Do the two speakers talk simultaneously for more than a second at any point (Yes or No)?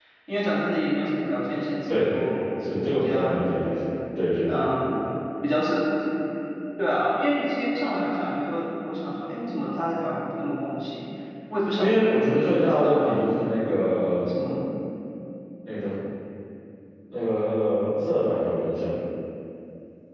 Yes